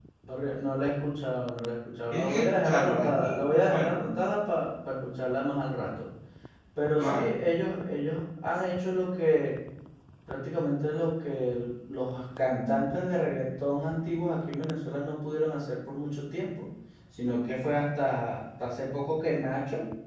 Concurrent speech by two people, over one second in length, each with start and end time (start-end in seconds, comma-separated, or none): 2.1-4.0